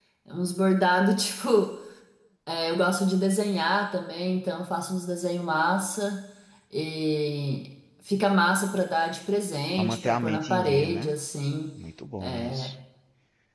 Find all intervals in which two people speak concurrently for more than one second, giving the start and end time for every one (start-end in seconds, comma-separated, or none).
9.8-11.2